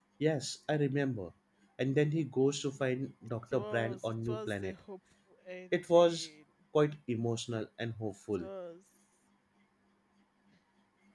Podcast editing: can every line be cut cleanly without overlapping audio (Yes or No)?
No